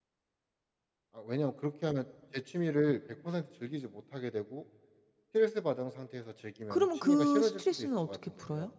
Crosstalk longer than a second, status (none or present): present